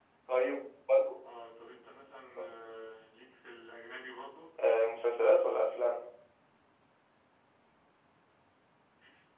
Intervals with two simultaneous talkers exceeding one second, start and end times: none

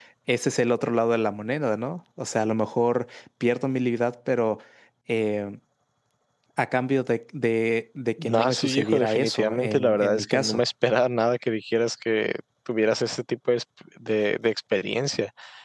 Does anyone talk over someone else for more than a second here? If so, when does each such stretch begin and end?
8.2-10.6

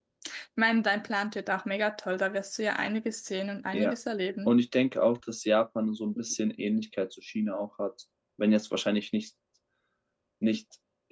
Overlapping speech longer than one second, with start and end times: none

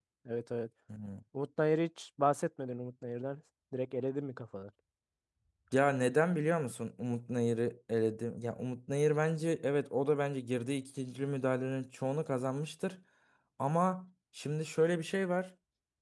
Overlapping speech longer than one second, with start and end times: none

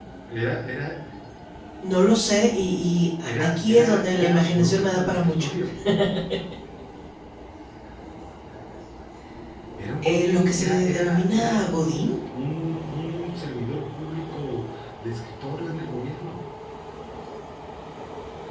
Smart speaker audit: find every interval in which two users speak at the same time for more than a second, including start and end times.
3.4-5.5, 10.0-11.9

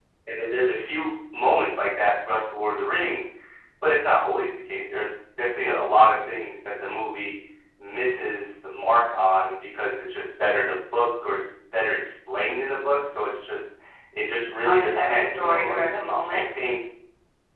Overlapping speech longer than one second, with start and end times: 14.6-15.8

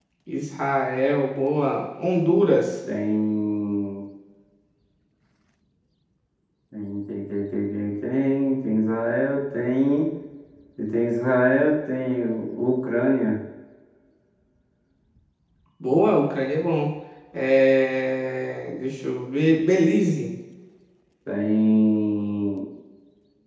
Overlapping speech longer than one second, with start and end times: none

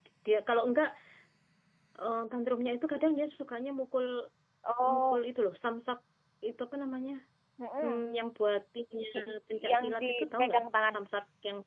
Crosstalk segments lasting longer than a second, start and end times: 9.7-11.0

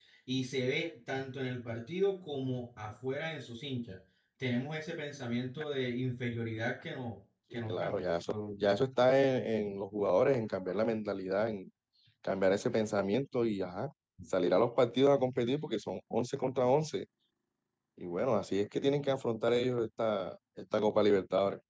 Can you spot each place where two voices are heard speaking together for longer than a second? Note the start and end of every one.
none

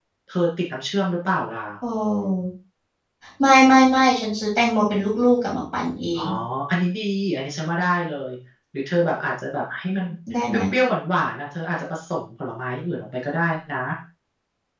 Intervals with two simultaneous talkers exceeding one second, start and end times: none

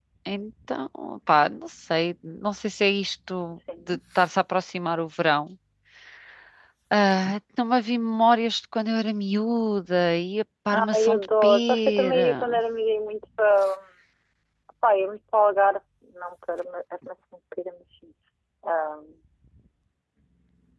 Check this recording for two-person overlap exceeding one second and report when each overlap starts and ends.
10.9-12.6

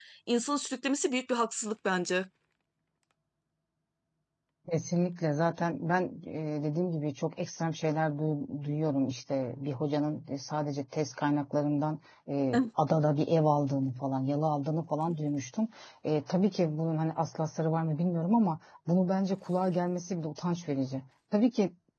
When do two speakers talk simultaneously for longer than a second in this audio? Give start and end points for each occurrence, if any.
none

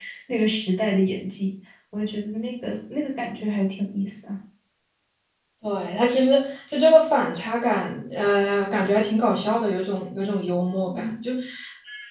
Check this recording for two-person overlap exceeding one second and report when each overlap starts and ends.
none

